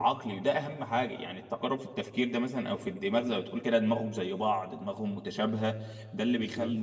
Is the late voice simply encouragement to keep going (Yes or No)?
Yes